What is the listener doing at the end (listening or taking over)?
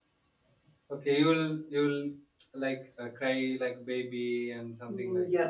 taking over